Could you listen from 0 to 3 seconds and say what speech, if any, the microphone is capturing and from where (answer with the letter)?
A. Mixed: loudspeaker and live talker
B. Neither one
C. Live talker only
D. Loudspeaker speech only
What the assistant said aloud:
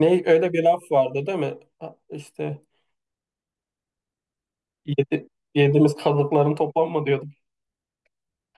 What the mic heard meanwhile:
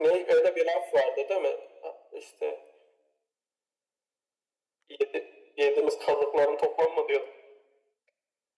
D